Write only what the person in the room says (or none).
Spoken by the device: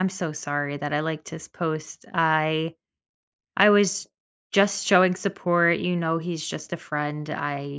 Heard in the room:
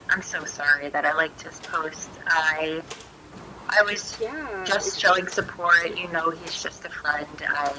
It yeah, ex